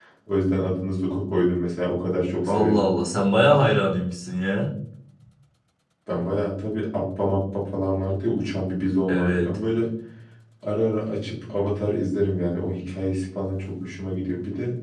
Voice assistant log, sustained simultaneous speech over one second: none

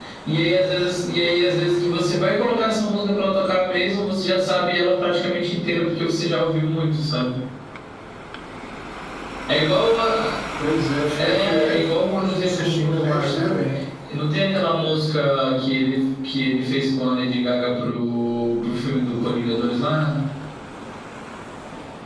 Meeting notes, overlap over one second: present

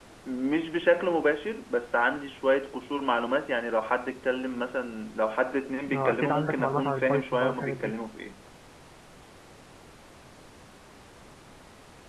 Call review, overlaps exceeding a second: present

